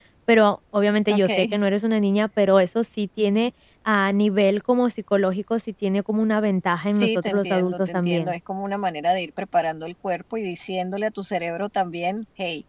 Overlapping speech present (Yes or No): Yes